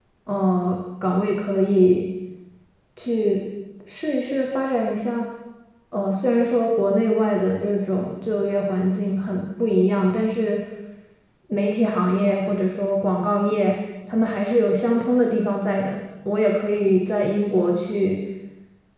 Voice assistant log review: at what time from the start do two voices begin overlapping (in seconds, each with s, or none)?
none